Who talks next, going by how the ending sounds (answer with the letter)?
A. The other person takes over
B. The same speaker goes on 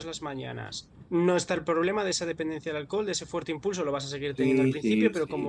A